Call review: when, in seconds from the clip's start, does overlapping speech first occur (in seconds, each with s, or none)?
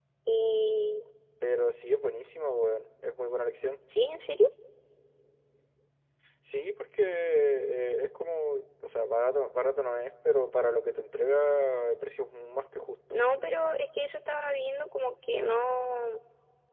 none